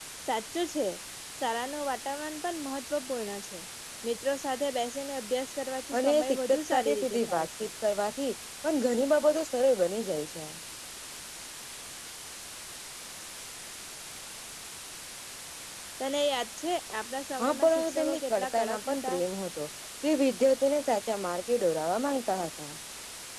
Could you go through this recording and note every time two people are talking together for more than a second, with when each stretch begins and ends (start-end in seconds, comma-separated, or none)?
6.0-7.7, 17.4-19.2